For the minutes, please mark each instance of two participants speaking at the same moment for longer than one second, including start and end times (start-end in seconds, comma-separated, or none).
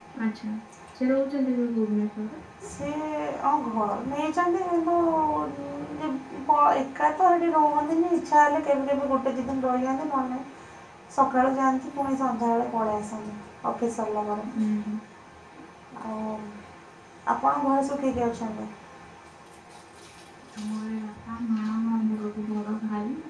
none